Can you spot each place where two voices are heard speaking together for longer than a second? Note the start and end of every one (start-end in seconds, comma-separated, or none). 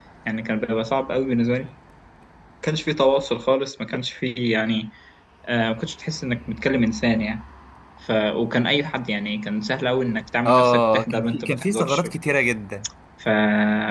10.4-12.1